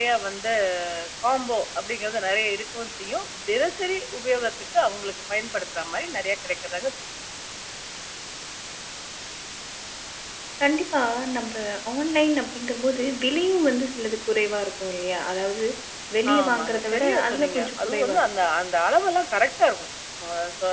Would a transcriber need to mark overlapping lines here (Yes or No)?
Yes